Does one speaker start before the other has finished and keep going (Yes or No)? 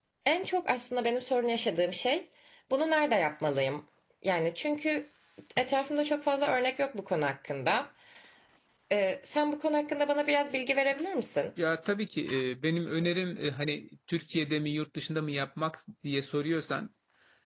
No